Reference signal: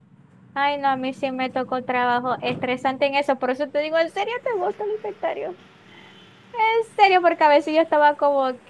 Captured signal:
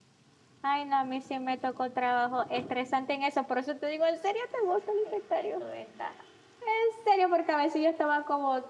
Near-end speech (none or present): present